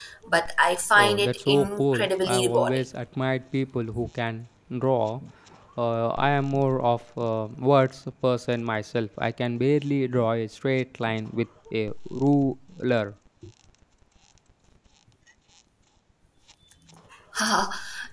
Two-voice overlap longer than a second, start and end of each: 1.0-2.8

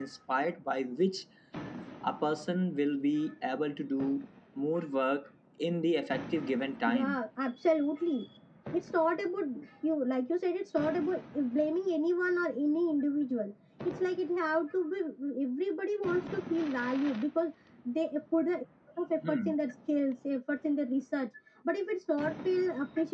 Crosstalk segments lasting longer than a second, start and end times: none

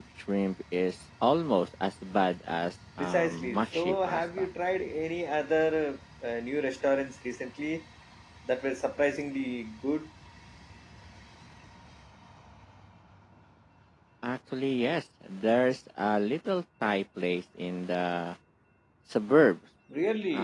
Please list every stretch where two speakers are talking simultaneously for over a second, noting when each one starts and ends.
3.0-4.5

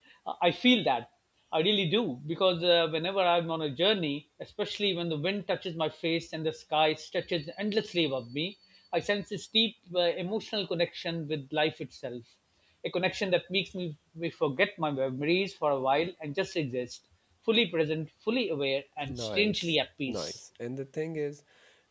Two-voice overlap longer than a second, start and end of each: 19.0-20.4

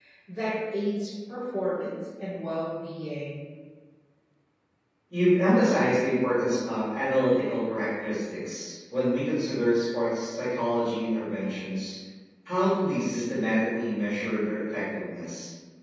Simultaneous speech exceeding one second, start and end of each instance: none

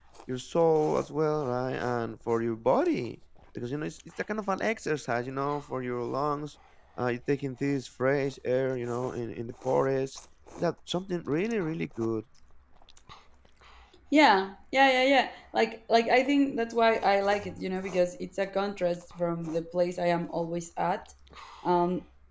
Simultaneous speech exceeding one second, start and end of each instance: none

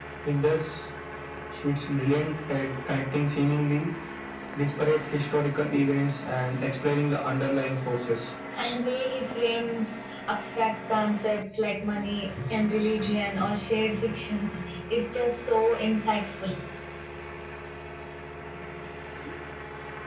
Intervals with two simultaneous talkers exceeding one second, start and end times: none

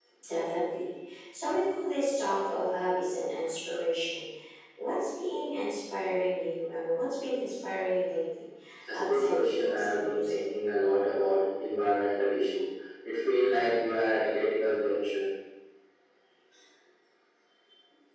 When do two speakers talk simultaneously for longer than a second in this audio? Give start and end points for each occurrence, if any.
8.9-10.4

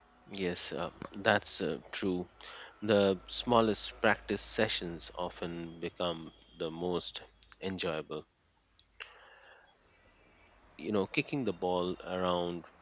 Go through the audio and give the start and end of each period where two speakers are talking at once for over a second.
none

